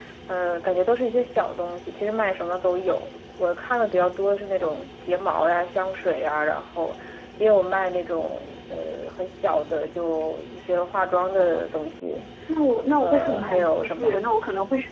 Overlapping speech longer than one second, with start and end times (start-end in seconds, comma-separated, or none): 13.0-14.2